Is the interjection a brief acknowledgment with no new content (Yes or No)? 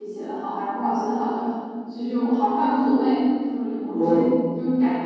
Yes